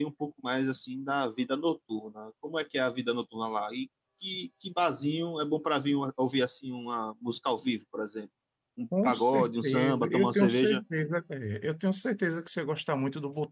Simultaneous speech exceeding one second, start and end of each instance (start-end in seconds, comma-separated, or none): 9.0-10.8